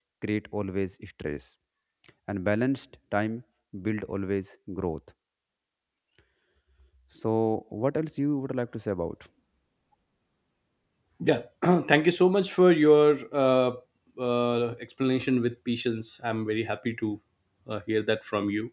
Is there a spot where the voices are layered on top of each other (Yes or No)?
No